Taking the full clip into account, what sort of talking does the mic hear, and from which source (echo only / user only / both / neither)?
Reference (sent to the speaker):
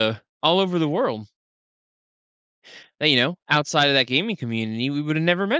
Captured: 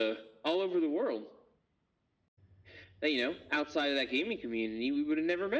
echo only